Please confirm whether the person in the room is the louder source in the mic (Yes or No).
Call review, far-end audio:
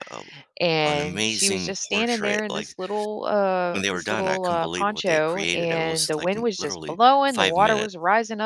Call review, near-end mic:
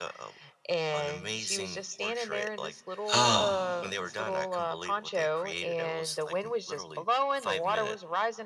Yes